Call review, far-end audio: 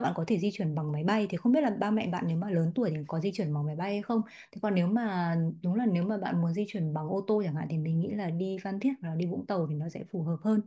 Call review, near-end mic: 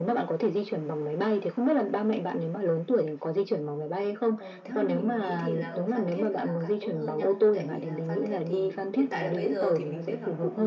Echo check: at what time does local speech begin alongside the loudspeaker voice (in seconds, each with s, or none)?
4.3 s